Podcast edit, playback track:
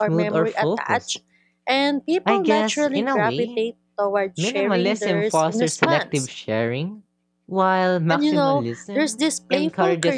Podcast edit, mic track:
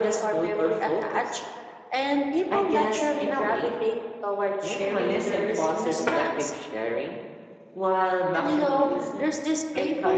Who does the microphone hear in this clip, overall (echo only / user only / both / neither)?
echo only